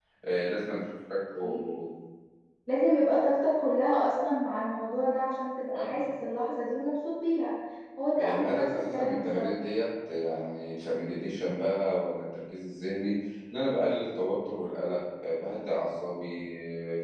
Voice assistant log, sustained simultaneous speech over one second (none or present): present